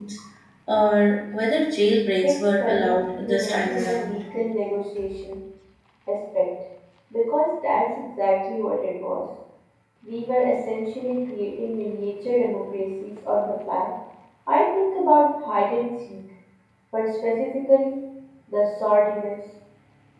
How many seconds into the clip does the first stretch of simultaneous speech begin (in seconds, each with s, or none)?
2.2 s